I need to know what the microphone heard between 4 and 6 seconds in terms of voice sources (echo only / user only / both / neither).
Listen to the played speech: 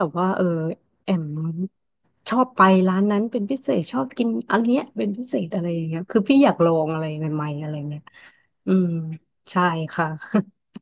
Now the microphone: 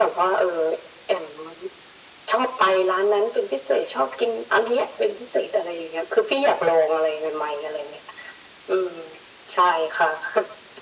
echo only